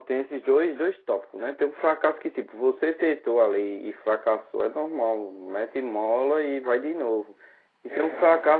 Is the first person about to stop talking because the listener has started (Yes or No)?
No